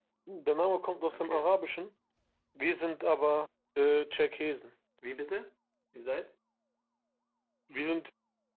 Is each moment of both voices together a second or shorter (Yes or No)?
Yes